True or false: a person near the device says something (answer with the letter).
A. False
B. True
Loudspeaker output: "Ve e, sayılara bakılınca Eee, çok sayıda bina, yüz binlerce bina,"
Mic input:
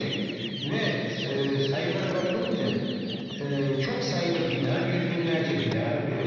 A